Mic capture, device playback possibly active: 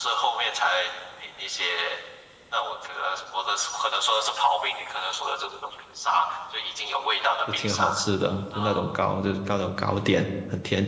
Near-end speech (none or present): present